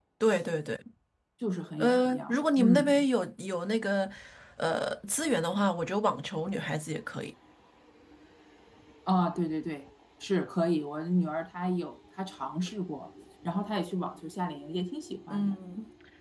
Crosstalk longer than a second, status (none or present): present